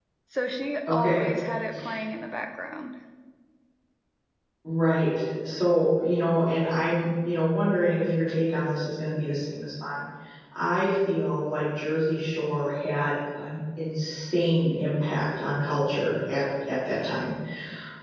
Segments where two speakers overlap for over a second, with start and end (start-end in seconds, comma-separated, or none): none